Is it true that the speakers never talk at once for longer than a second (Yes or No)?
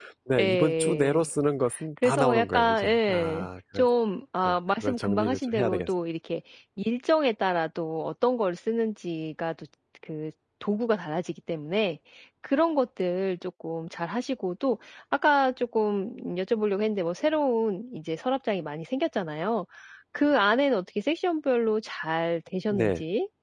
No